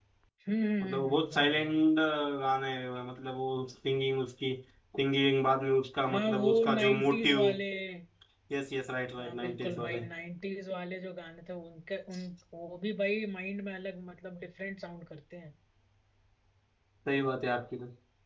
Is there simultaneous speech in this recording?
Yes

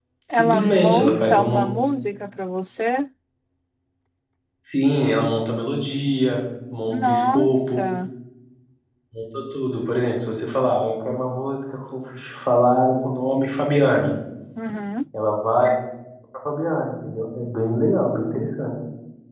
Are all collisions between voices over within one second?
No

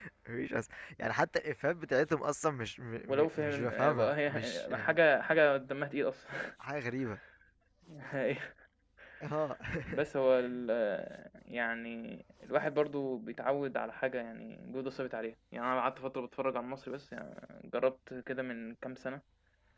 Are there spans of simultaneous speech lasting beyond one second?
Yes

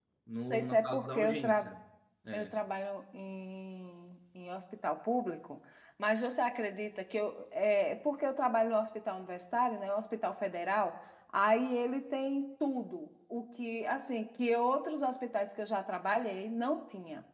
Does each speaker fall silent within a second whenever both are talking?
No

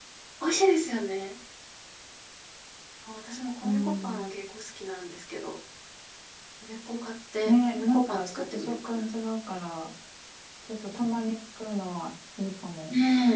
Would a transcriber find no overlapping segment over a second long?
No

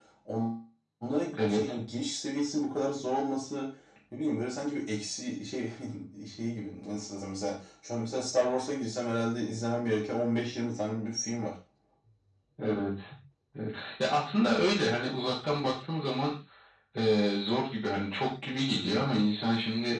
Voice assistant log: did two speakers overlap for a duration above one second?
No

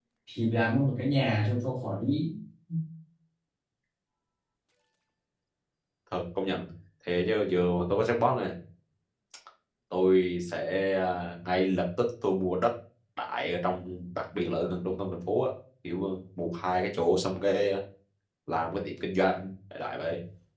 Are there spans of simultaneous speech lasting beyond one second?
No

